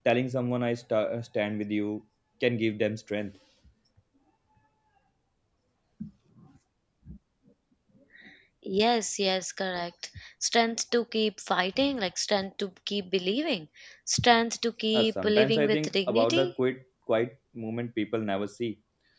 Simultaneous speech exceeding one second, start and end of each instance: 14.9-16.5

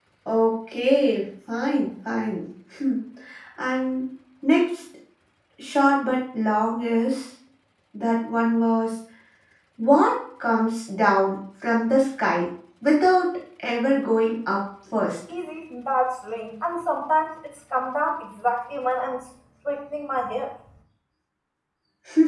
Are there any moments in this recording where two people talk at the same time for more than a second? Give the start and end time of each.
none

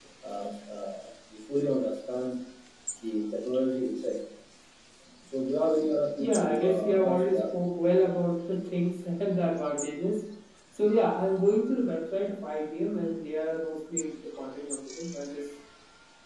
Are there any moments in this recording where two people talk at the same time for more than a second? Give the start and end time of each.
6.2-7.4

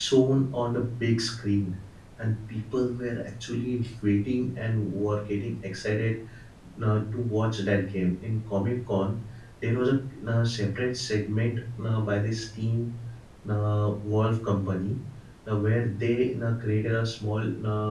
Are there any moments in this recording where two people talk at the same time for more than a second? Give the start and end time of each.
none

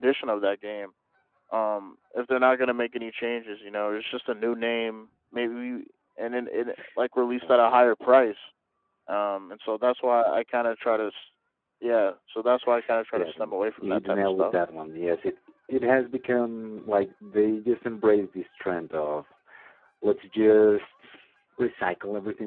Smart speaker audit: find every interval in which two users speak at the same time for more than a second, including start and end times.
13.2-14.5

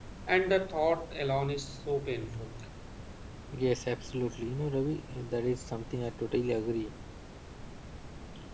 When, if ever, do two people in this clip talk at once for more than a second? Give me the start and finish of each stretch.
none

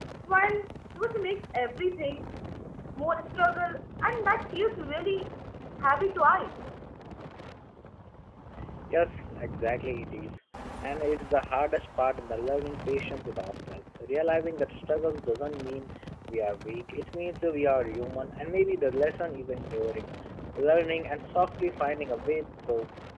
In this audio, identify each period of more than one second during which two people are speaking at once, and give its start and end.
none

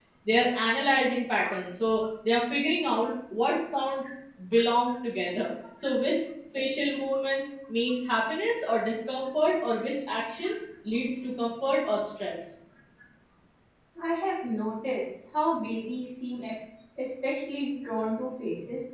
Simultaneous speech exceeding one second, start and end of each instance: none

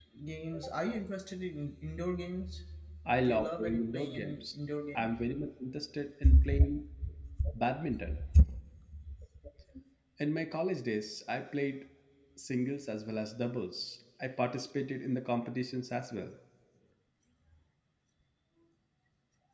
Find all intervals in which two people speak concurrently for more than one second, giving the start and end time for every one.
3.2-4.4

